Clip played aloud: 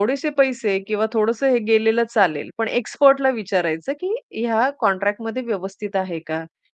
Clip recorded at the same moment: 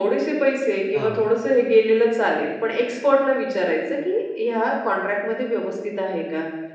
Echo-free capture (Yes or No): No